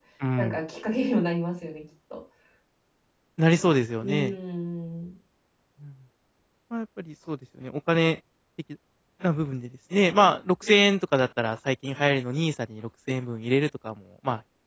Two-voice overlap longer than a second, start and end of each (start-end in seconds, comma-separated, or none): none